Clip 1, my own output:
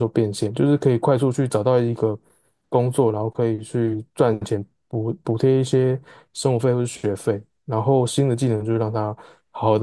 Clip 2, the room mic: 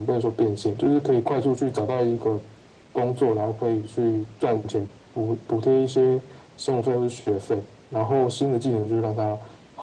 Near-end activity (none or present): none